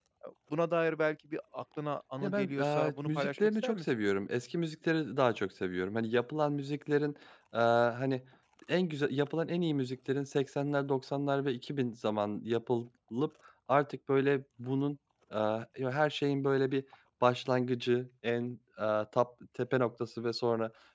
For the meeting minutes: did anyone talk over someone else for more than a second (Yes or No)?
Yes